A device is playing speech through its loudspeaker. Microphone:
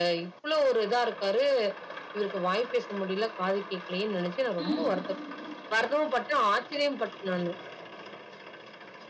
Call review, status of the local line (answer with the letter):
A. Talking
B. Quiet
A